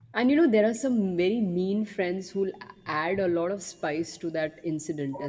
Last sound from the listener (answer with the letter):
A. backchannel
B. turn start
A